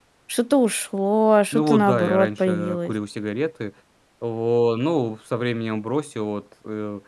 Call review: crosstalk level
present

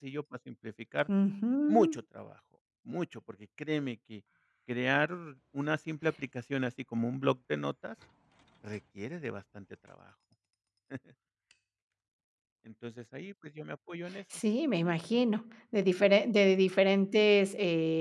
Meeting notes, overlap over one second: none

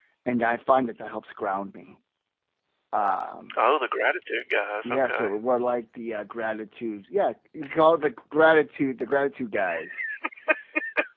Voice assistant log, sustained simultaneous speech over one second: none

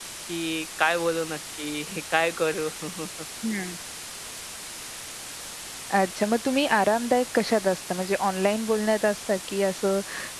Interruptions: none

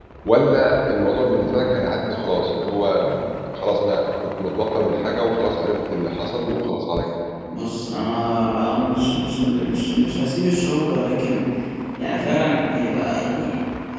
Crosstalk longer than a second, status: none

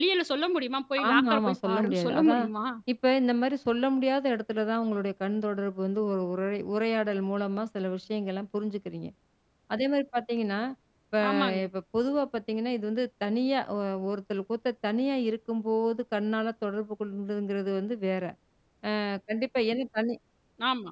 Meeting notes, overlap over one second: present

